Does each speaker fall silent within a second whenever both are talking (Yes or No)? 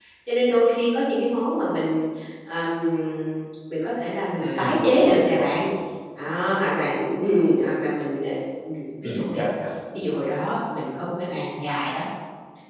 No